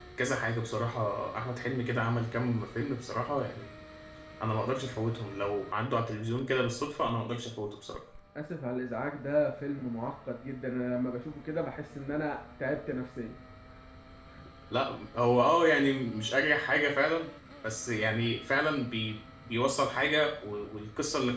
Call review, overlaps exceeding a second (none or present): none